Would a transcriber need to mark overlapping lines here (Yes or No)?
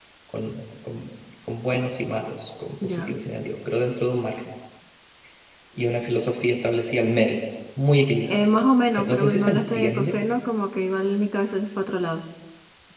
Yes